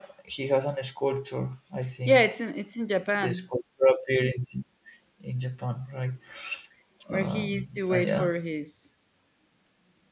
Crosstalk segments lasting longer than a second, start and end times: 7.1-8.3

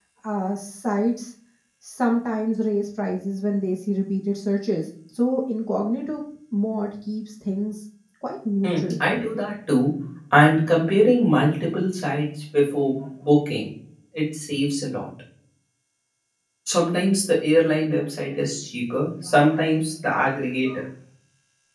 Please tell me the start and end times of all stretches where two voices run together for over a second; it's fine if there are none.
none

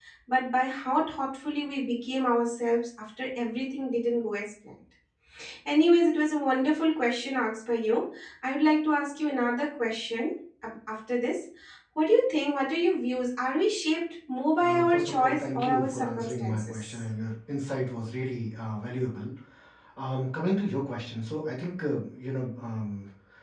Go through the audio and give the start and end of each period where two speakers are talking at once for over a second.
14.6-17.0

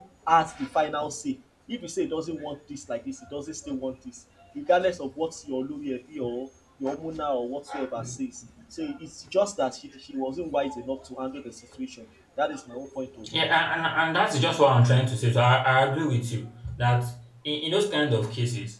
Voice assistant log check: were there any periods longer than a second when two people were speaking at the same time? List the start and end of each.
none

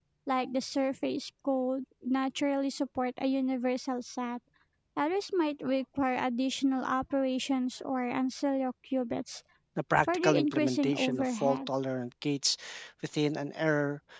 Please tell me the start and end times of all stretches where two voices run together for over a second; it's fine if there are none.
10.0-11.7

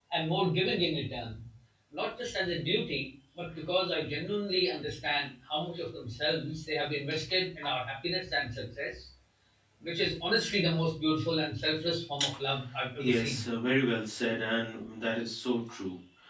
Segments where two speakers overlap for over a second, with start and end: none

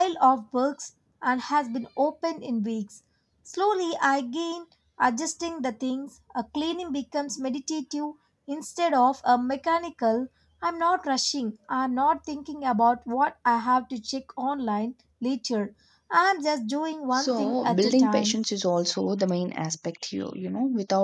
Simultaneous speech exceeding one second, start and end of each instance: 17.1-18.4

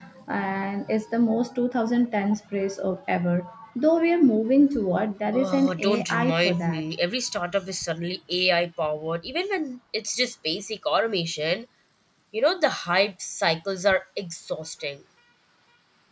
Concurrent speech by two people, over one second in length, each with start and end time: 5.3-6.8

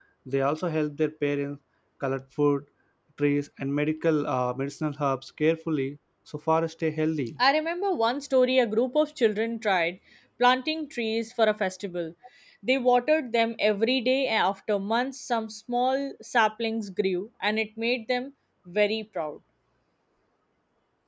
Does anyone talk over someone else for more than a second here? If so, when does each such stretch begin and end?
none

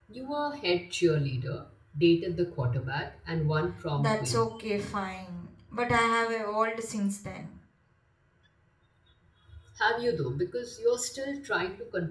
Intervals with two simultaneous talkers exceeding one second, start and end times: none

